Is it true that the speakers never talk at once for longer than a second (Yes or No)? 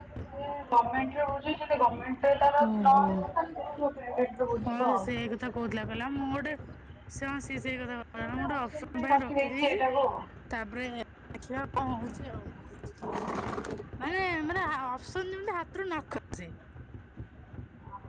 No